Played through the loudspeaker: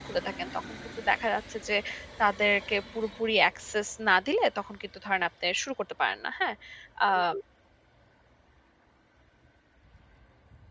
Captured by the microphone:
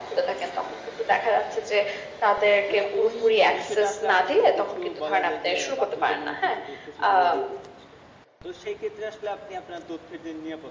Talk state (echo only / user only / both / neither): both